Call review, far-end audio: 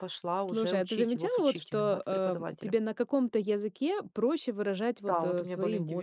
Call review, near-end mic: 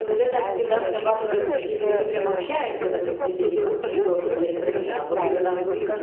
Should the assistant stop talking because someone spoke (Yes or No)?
Yes